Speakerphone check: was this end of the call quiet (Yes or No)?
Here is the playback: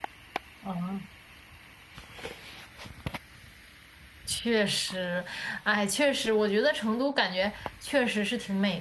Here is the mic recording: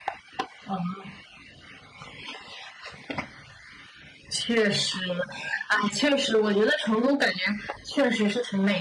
Yes